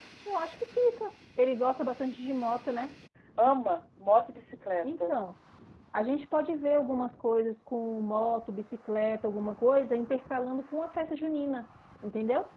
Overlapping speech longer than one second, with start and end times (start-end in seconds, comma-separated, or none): none